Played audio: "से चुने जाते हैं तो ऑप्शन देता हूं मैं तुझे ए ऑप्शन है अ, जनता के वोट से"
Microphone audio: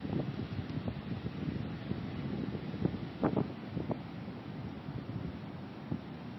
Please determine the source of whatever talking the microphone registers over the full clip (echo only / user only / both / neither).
neither